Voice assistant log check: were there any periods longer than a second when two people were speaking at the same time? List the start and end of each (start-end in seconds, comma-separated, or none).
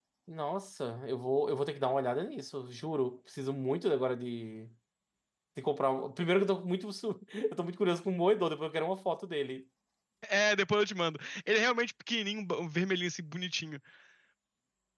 none